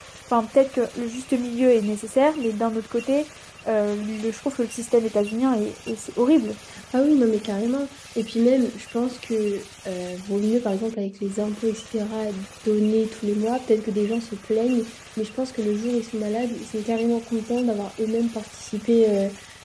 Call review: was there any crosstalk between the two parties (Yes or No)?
No